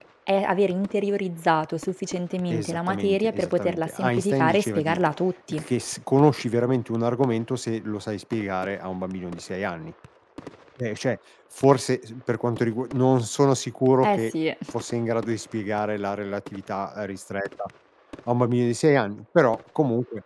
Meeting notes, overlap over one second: present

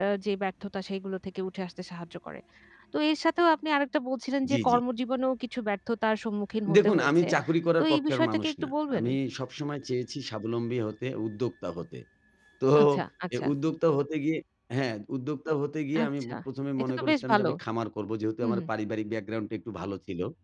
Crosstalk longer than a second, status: present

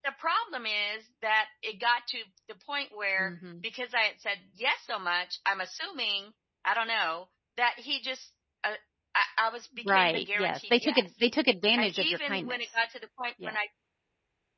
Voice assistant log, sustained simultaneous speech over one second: present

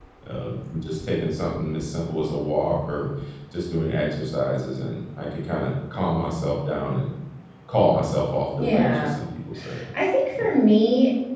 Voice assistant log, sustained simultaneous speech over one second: none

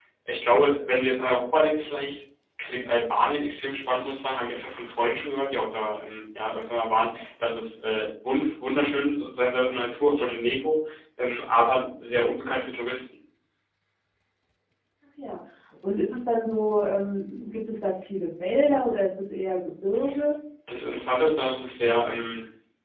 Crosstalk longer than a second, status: none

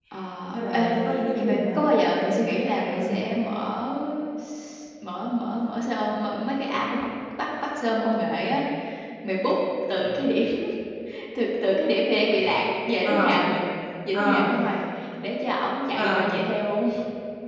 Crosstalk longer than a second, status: none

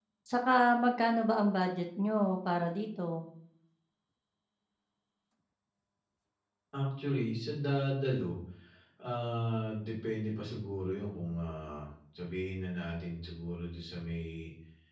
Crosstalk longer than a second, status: none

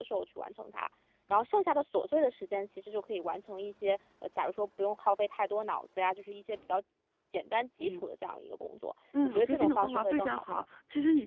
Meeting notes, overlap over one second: present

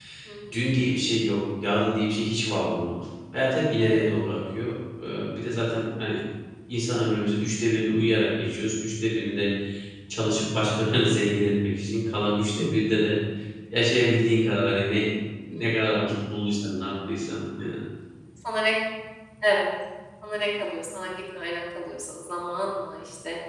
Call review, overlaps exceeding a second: none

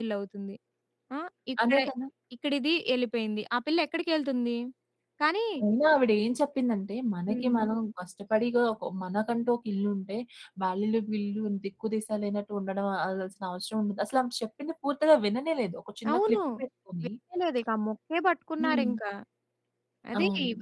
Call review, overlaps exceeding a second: none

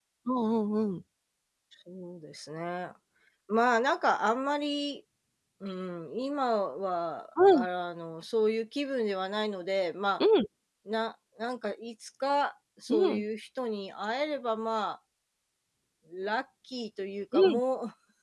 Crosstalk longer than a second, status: none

